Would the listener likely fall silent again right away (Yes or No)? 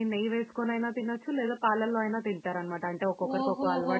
No